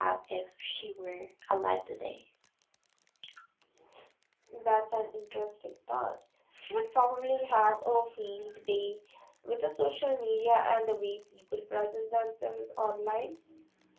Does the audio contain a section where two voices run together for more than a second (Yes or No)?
No